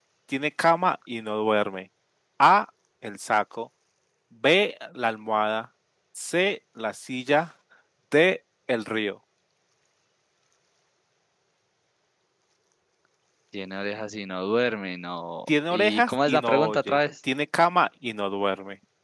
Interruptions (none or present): present